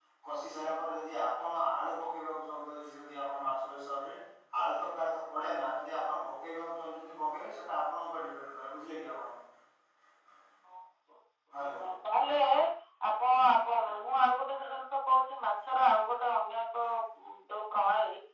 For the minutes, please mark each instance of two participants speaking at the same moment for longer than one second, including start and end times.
none

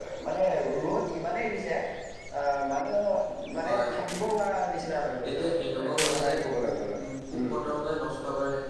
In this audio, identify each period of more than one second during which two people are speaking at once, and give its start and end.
5.3-6.7

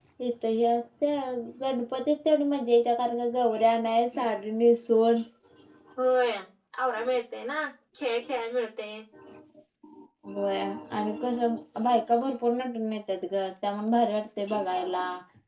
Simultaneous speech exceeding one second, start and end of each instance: none

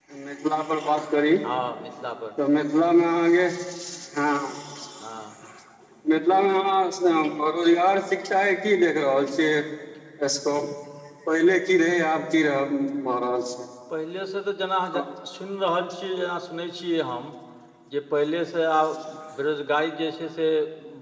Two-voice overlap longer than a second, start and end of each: none

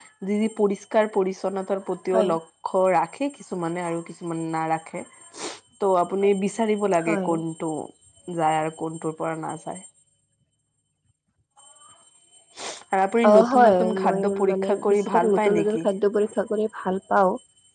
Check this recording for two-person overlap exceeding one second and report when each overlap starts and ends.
13.3-15.9

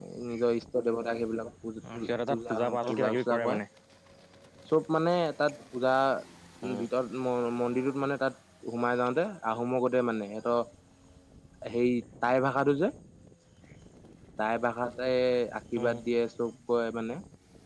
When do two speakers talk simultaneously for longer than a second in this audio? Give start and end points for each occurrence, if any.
1.9-3.4

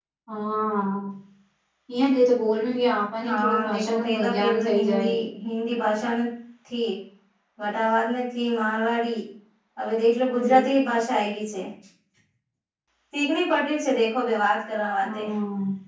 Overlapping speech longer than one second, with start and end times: 3.3-5.1

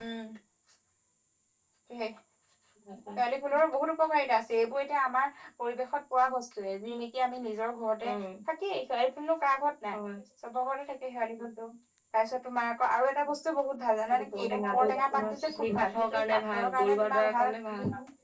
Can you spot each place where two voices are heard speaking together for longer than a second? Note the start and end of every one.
14.2-17.5

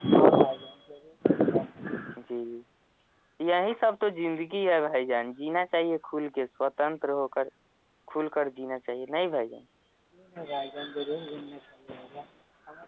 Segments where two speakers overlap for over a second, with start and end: none

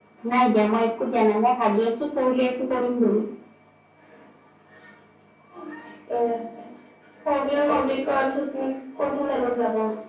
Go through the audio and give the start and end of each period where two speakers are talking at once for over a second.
none

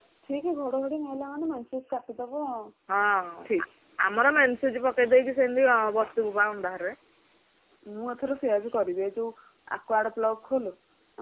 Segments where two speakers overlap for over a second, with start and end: none

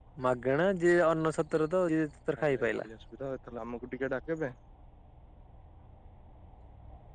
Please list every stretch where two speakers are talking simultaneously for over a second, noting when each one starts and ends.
none

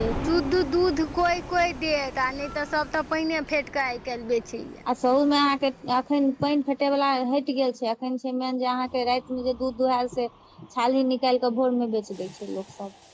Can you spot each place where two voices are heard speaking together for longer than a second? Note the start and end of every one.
none

